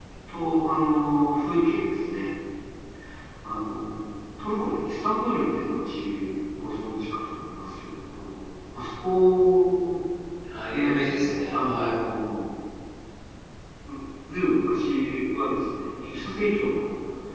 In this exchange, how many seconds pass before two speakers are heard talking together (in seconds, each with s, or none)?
10.7 s